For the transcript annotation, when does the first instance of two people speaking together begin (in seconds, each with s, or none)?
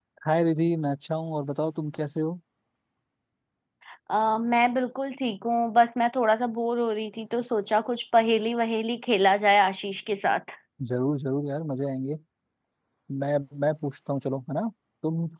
none